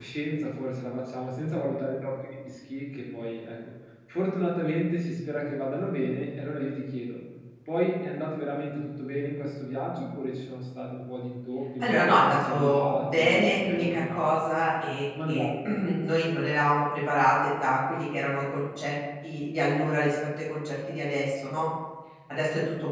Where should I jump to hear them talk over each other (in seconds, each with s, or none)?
11.8 s